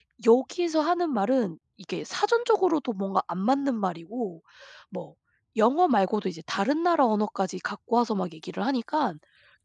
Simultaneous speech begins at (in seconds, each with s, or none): none